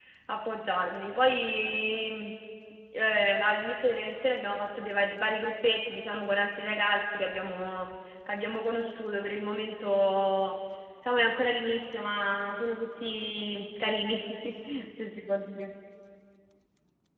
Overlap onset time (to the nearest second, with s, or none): none